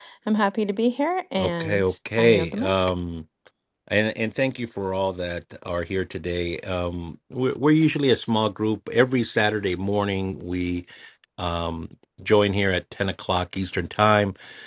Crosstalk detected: Yes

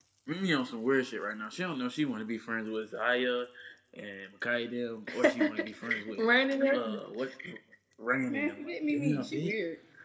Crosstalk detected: Yes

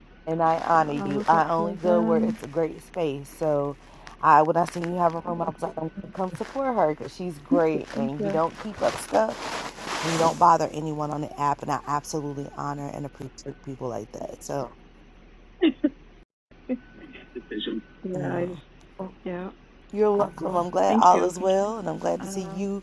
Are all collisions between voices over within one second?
No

